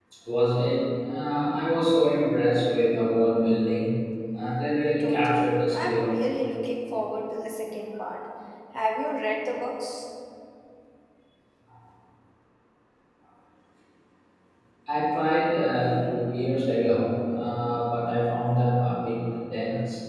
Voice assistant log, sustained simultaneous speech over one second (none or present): present